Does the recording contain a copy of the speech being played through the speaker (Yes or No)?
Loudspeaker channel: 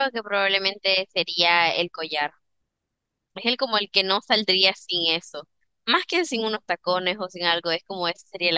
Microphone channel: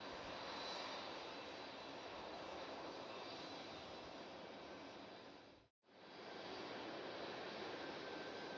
No